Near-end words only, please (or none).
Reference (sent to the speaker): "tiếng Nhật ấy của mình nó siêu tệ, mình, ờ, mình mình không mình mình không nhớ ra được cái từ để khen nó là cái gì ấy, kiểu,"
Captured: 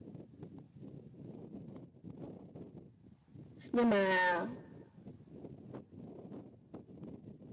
Nhưng mà,